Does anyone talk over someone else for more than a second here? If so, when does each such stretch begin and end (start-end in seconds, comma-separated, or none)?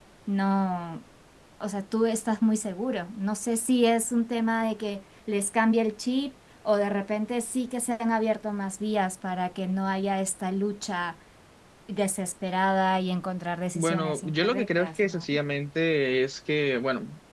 13.8-15.2